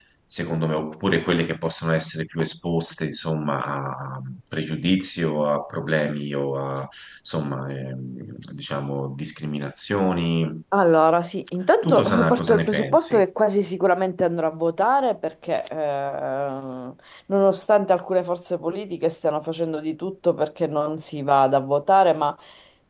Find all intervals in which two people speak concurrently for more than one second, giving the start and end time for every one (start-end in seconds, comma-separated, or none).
11.8-13.2